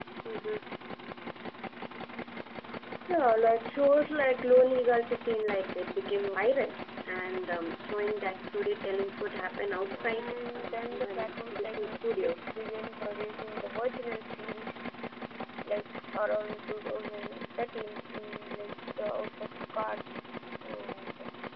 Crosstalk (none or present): present